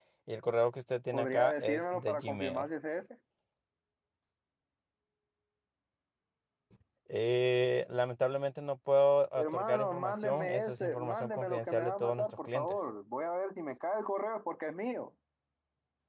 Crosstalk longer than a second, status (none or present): present